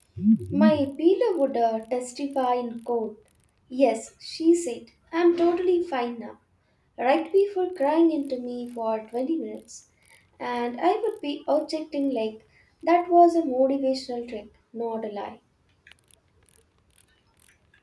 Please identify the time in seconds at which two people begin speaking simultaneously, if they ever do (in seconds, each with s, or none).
none